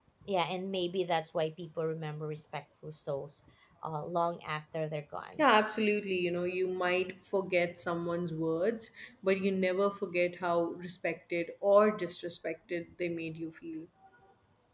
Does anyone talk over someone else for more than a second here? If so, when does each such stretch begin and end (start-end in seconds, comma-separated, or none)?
none